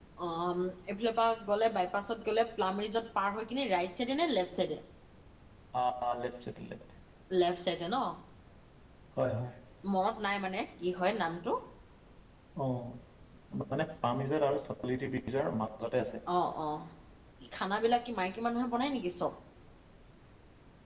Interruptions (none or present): none